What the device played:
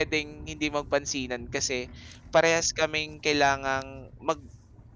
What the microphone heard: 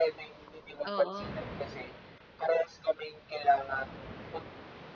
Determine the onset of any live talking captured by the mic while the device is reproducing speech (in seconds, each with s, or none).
0.8 s